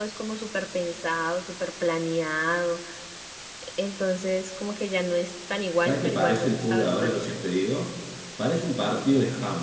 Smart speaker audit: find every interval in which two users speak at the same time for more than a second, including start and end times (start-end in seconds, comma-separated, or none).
5.8-7.3